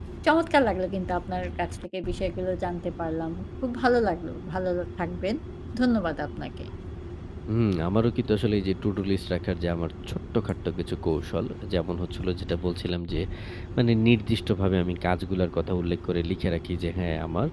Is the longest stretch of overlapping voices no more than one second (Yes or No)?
Yes